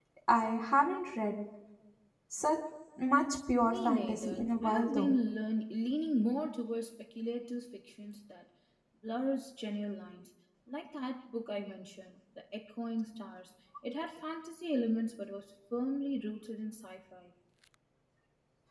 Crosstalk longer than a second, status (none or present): present